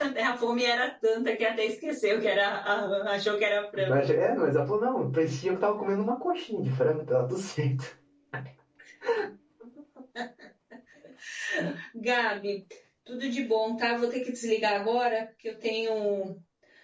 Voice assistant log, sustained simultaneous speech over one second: none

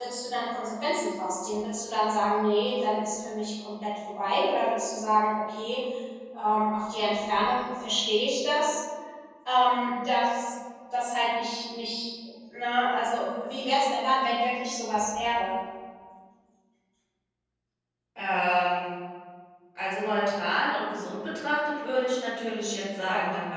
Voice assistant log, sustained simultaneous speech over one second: none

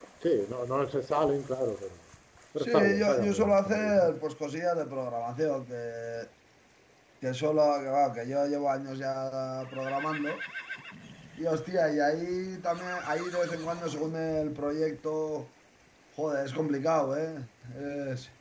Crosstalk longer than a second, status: present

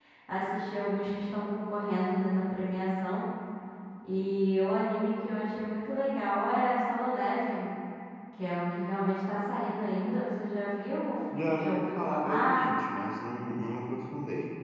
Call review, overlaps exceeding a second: present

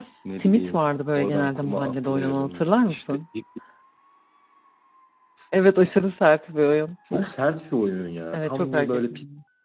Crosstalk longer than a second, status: present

